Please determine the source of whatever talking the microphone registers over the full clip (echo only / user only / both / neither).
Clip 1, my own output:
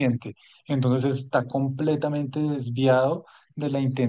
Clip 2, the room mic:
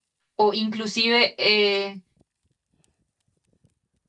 user only